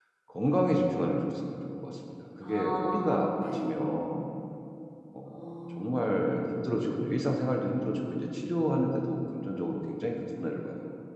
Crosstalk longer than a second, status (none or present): present